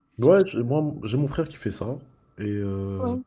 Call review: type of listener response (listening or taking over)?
listening